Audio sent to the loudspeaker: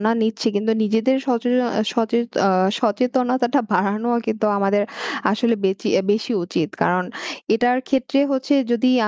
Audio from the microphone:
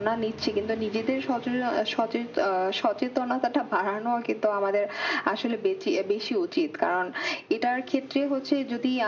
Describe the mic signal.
echo only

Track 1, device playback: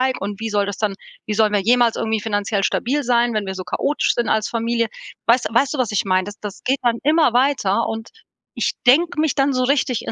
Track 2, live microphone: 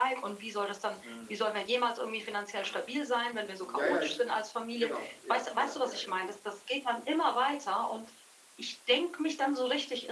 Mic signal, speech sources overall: both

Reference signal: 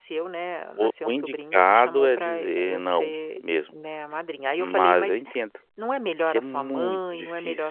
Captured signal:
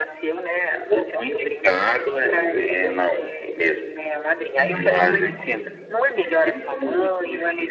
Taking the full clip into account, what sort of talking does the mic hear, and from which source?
both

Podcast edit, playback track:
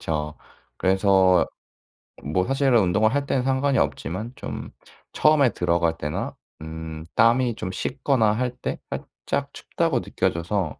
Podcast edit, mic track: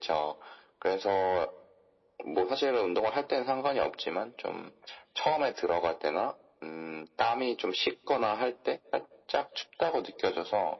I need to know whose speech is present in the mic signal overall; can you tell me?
echo only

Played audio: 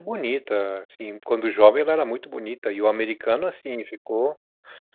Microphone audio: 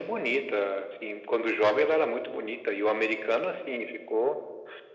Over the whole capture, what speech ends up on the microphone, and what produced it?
echo only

